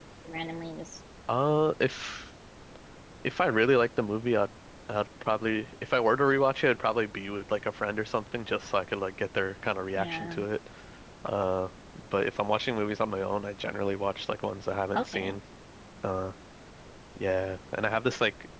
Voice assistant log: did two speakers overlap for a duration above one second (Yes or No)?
No